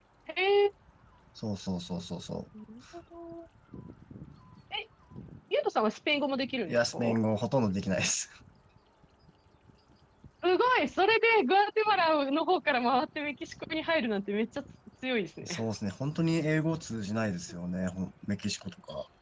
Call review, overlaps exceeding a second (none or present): none